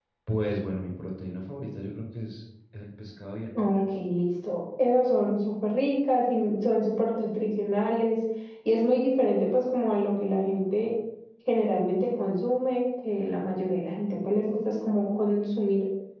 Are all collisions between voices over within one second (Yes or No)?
Yes